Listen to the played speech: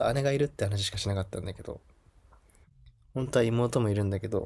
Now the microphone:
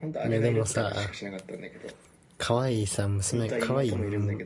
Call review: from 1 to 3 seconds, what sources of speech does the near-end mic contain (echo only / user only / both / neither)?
both